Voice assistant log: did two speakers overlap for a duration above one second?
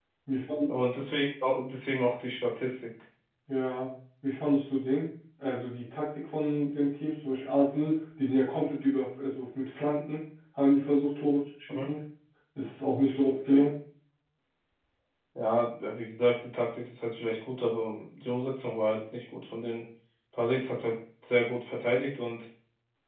No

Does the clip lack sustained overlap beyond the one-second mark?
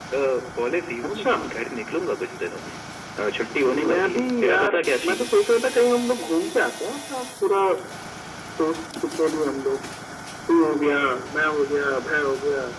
No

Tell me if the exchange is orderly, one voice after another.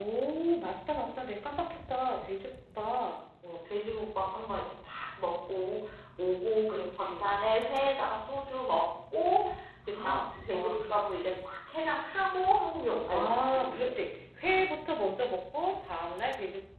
No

